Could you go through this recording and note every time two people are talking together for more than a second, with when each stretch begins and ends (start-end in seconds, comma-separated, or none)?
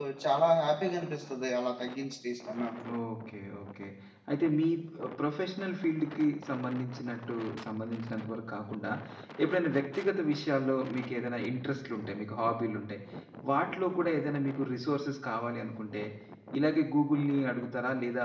none